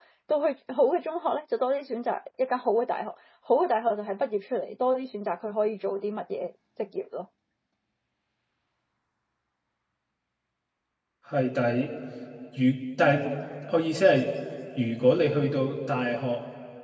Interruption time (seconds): none

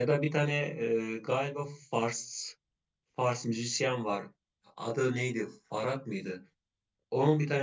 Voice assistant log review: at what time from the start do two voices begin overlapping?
none

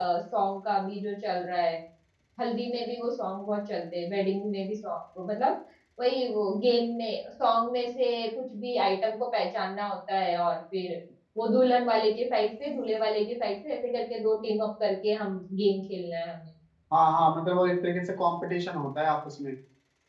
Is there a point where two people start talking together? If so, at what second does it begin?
none

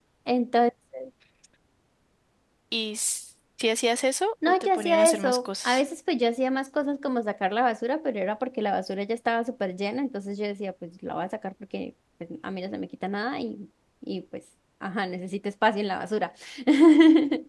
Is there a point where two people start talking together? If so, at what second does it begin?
4 s

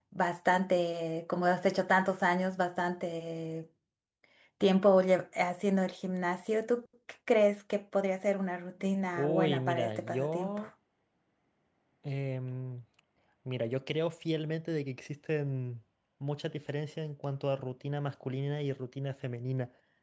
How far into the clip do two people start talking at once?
9 s

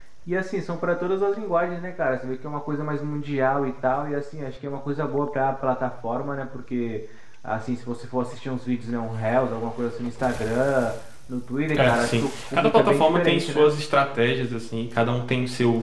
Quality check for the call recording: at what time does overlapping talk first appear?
12 s

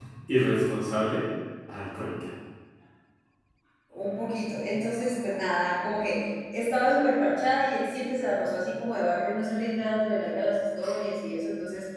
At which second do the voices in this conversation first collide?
none

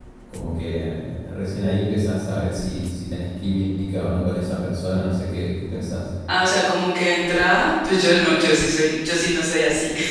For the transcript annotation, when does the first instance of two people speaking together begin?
none

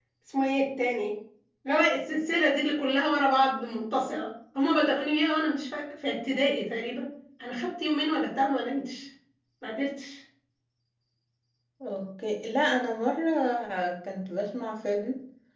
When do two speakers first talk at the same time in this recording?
none

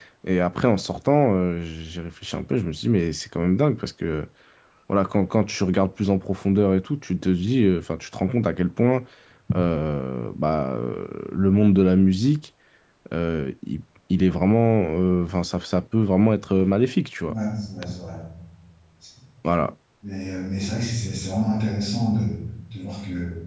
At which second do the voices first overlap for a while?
none

